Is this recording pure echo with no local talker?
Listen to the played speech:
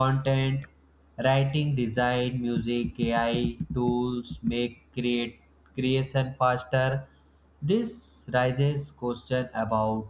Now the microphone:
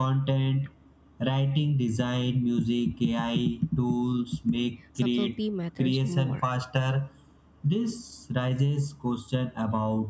No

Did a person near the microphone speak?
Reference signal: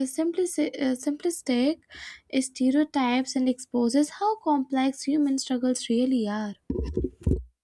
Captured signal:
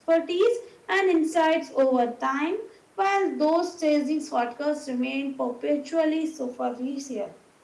Yes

